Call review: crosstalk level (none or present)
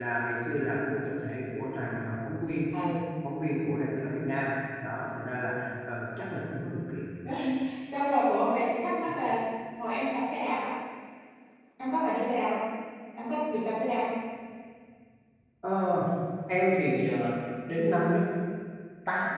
none